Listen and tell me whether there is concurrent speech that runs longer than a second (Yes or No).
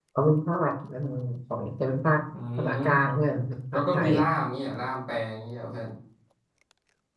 No